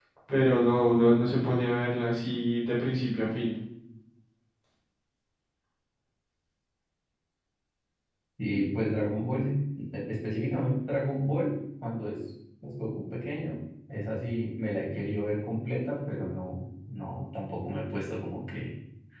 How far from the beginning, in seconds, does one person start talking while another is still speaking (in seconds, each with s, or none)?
none